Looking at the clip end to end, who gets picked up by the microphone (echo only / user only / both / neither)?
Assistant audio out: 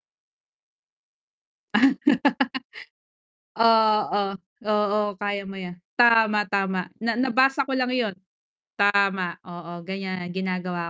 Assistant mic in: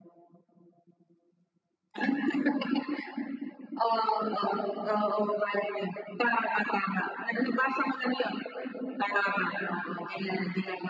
echo only